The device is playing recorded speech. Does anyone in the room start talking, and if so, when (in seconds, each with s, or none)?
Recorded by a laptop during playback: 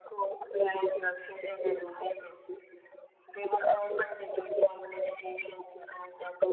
none